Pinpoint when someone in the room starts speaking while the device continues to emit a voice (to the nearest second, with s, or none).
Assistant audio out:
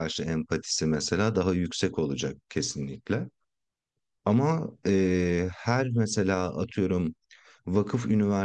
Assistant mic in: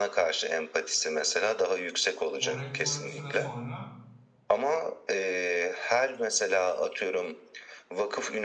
2 s